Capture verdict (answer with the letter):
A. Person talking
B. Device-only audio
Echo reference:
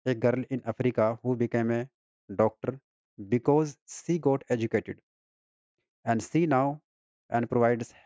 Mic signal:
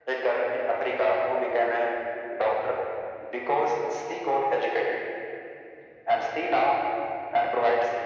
B